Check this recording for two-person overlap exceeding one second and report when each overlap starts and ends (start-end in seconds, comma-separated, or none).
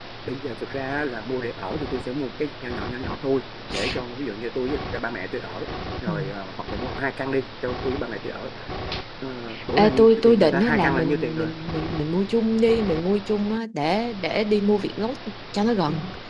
9.8-11.5